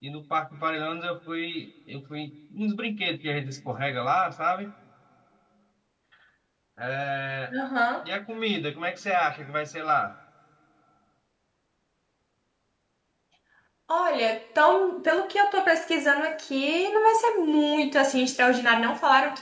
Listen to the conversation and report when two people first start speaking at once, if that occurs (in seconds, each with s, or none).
none